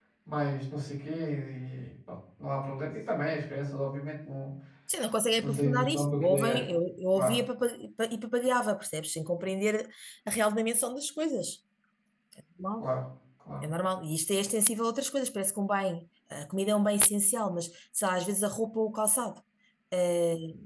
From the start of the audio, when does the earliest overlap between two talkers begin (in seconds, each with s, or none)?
5.4 s